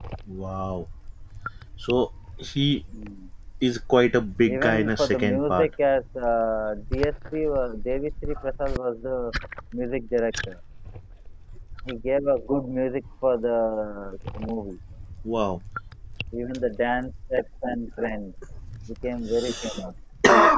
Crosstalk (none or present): present